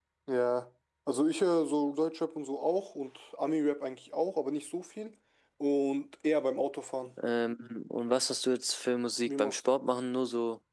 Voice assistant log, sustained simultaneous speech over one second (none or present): none